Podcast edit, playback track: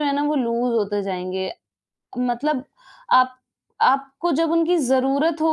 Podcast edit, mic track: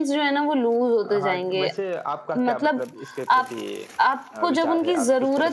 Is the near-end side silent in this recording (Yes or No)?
No